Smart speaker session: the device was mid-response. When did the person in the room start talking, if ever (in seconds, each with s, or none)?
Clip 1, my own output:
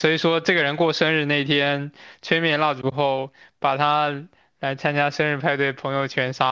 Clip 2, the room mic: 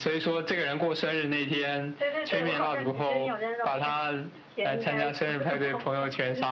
2.0 s